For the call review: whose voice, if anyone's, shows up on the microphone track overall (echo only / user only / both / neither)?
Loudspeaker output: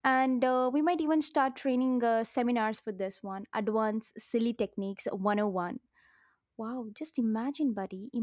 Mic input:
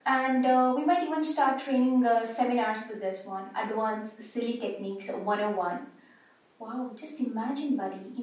echo only